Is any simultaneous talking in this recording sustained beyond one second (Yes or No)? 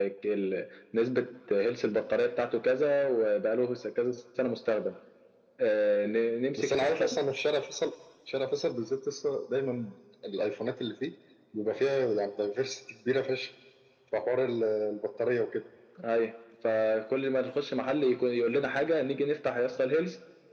No